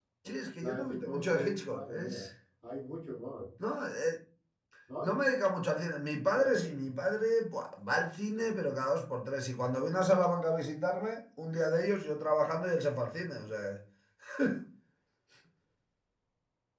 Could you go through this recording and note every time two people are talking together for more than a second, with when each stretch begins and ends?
0.6-2.2

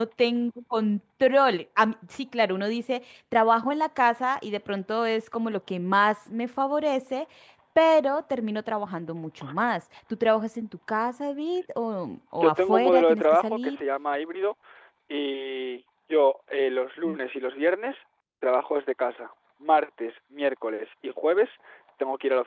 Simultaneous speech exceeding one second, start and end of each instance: 12.3-13.8

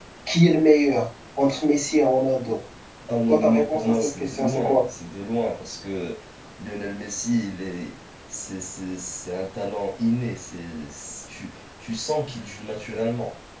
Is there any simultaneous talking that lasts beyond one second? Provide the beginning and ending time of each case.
3.3-4.8

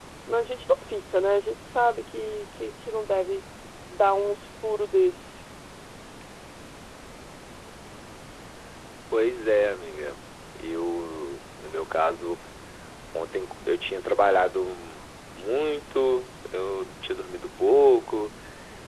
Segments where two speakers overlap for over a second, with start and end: none

